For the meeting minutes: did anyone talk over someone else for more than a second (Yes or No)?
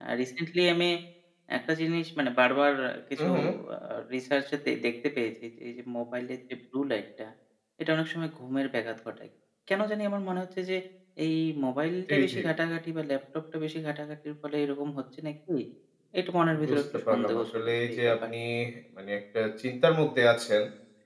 Yes